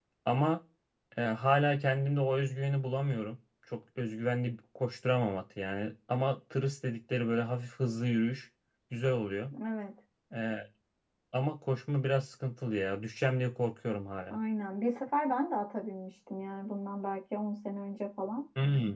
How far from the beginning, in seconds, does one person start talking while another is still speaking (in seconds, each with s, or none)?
none